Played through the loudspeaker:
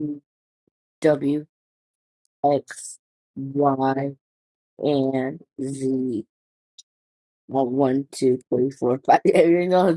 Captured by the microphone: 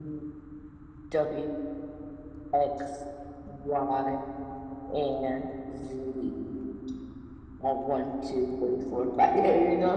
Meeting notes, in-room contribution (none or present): none